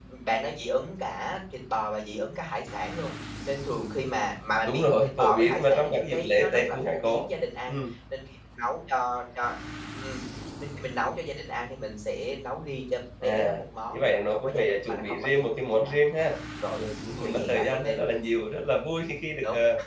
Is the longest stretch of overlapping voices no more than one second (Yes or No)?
No